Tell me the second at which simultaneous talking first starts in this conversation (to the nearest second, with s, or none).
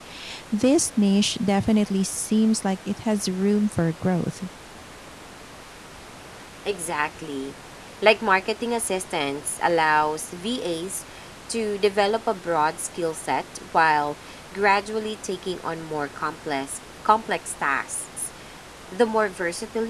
none